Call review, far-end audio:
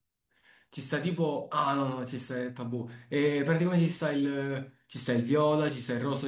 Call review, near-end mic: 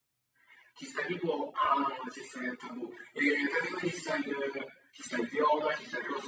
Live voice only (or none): none